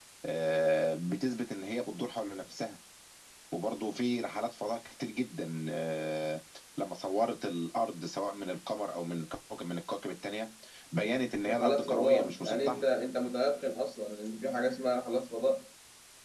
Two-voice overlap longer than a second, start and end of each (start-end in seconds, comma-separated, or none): 11.4-12.8